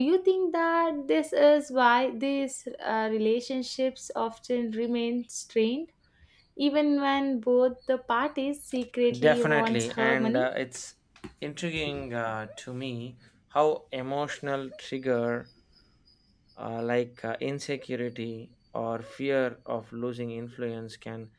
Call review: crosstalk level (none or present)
present